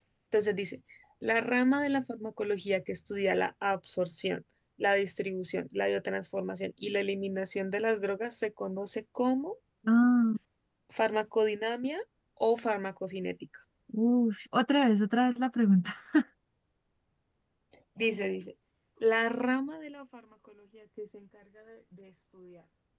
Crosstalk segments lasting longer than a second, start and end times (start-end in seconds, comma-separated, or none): none